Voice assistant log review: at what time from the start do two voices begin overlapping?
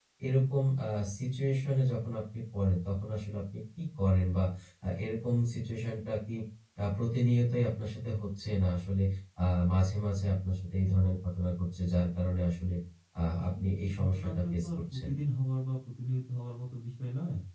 13.4 s

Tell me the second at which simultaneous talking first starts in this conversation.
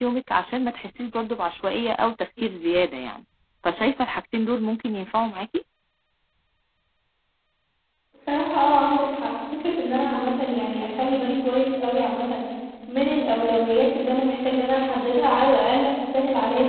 none

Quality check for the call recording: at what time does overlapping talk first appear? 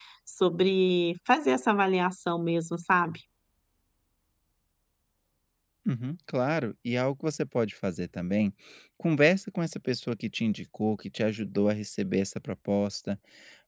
none

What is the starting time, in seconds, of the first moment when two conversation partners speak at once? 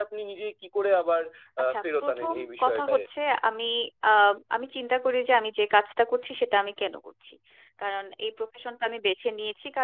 1.6 s

